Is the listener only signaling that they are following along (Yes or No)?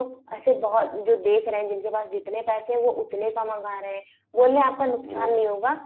Yes